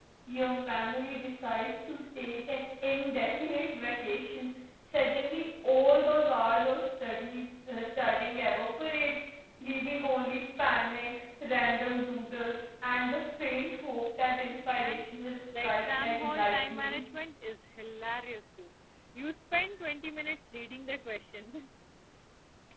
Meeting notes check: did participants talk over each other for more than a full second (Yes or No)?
Yes